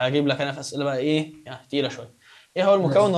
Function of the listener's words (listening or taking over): listening